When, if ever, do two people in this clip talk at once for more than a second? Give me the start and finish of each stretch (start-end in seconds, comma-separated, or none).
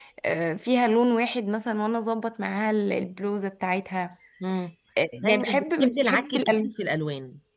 5.2-6.7